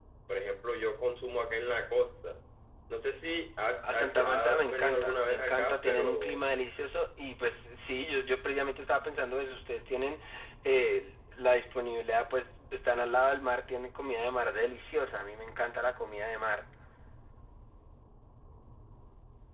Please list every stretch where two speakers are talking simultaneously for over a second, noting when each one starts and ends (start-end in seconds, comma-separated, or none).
3.8-6.4